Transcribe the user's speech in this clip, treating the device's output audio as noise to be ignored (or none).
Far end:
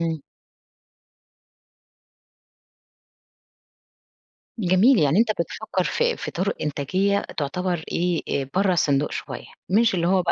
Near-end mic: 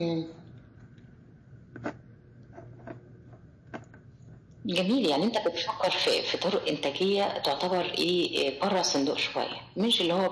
none